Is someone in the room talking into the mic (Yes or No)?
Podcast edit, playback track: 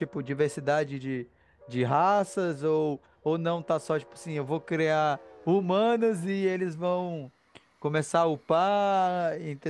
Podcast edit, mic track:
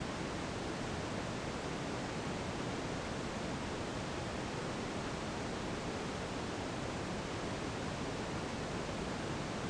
No